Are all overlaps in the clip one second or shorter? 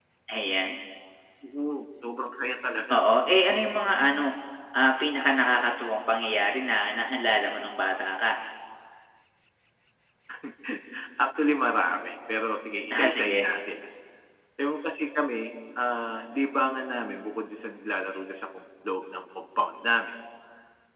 Yes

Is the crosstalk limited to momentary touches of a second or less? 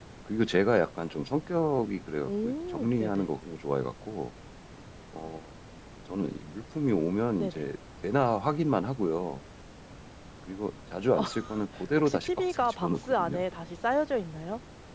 No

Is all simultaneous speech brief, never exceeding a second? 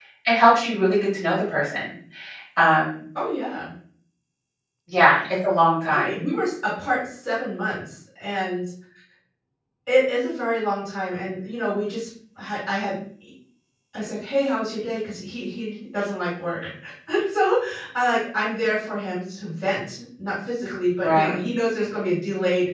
Yes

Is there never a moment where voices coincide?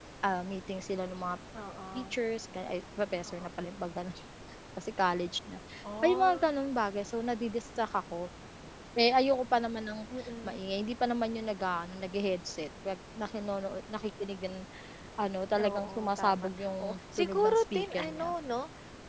No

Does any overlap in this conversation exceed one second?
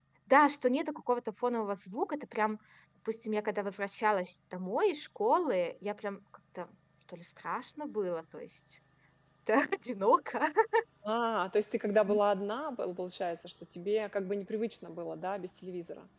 No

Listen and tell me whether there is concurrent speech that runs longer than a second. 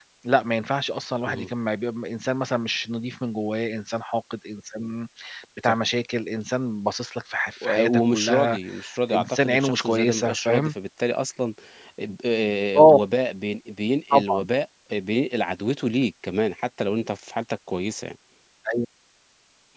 Yes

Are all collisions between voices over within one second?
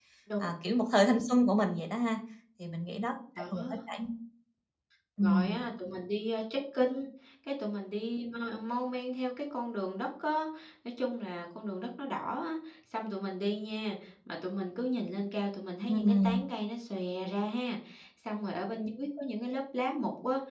Yes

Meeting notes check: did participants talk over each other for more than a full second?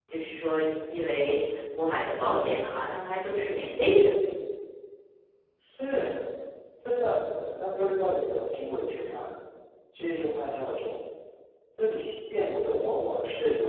No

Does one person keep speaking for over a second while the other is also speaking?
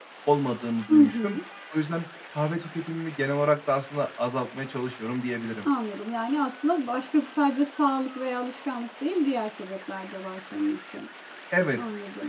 No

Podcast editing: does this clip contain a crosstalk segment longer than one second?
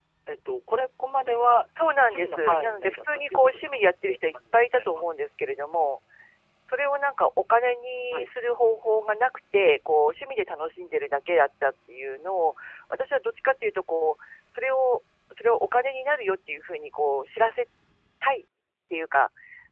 Yes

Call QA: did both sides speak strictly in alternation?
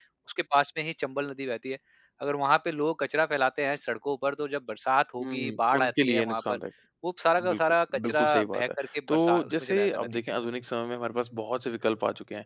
No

